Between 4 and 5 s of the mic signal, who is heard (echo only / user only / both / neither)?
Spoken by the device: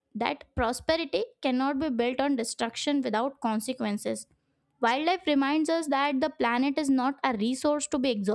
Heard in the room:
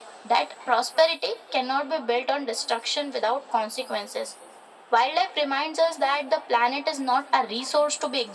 echo only